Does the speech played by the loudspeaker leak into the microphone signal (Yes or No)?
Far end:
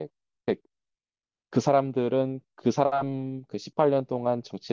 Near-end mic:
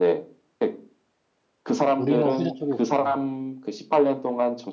Yes